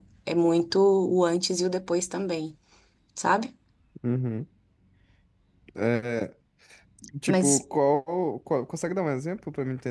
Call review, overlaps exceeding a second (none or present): none